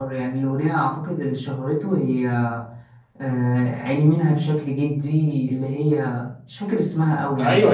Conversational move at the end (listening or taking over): taking over